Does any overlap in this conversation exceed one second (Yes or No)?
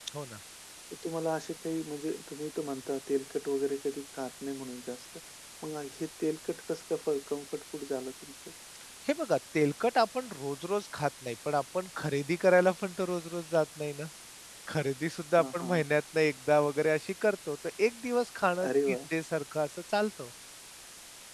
No